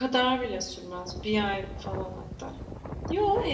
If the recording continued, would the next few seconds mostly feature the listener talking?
No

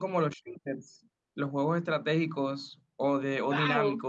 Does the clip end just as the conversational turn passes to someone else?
Yes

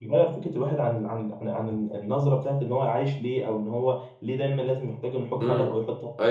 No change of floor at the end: No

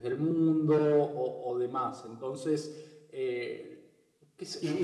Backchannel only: No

